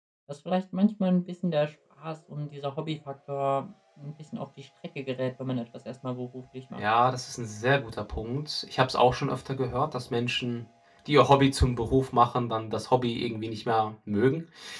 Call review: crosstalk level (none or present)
none